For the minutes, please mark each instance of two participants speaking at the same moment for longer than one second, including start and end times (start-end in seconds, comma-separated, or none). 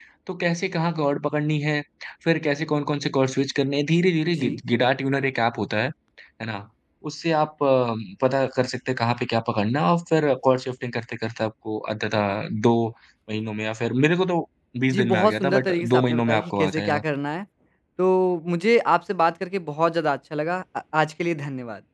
14.9-17.0